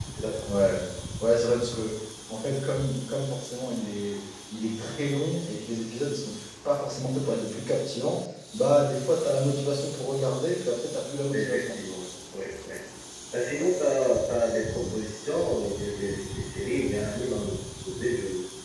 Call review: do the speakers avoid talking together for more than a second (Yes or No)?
Yes